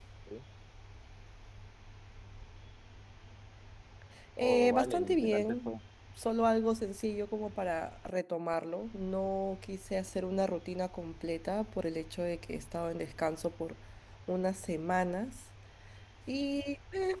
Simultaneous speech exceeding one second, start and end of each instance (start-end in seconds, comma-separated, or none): 4.4-5.8